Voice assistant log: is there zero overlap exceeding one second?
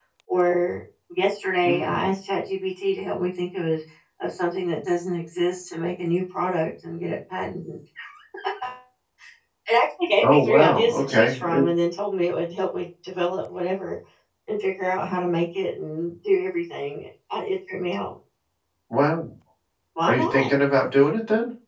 No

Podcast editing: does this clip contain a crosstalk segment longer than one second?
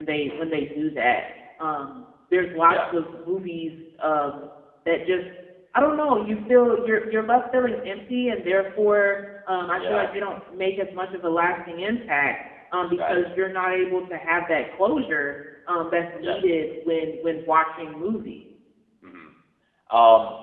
No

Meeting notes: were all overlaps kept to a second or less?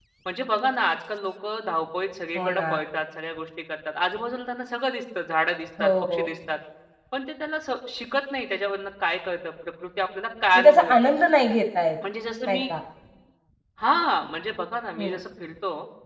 Yes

